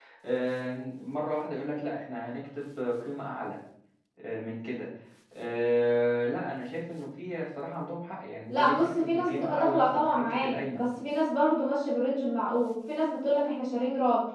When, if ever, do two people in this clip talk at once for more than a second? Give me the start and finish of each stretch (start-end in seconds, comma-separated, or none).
8.5-10.8